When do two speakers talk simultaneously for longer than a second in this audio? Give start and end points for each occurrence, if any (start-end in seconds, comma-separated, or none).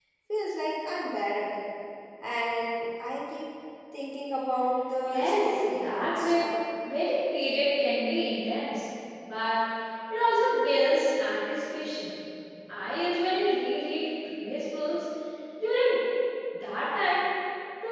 5.0-6.4